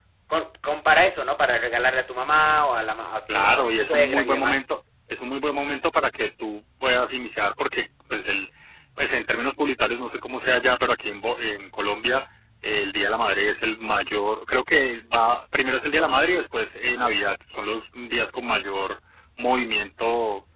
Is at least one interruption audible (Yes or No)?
Yes